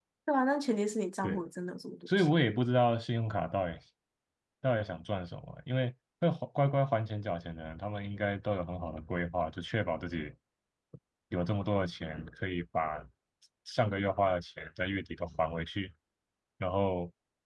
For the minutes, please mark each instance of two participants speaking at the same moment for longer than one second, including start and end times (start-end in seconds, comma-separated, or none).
none